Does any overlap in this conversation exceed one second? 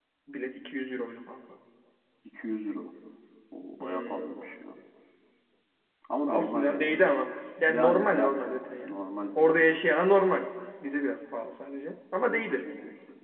Yes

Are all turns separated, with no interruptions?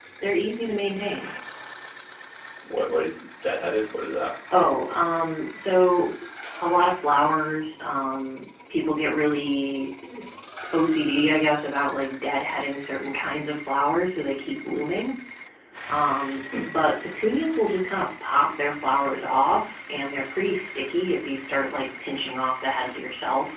Yes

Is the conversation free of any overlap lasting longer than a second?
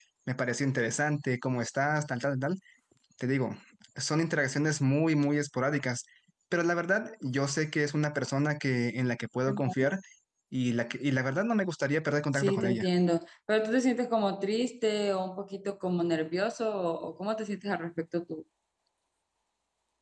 Yes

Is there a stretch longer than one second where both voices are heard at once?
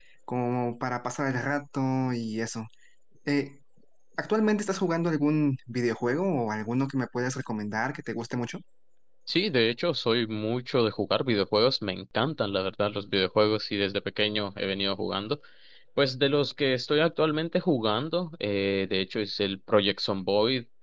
No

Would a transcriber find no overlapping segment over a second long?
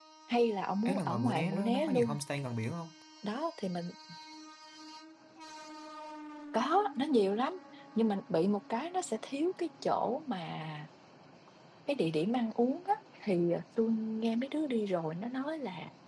No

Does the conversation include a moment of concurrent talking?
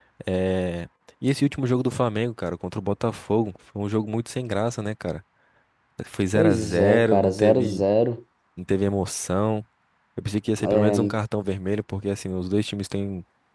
Yes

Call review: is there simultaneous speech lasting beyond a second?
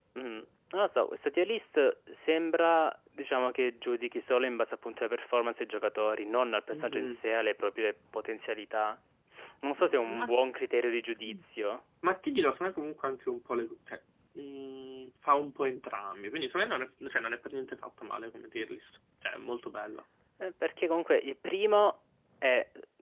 No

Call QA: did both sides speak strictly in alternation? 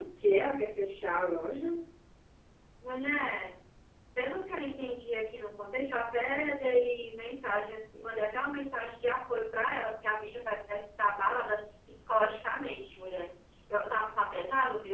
Yes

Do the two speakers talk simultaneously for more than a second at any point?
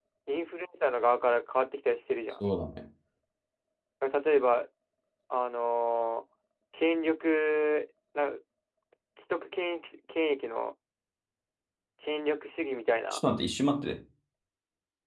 No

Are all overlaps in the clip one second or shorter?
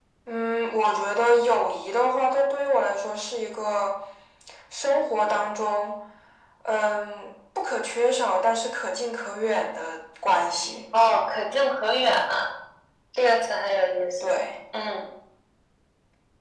Yes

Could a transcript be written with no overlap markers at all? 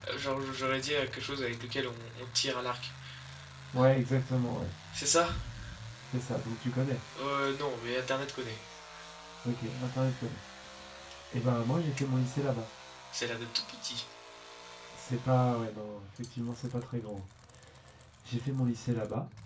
Yes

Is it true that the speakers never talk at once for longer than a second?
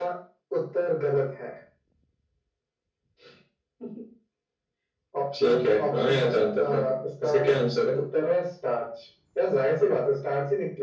No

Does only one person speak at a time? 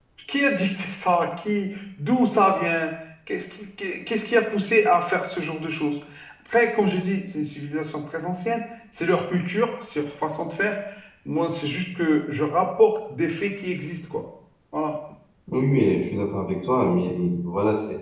Yes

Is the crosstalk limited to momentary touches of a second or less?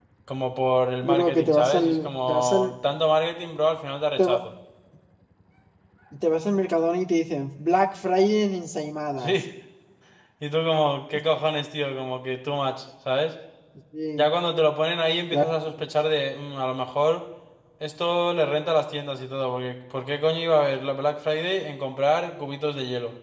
No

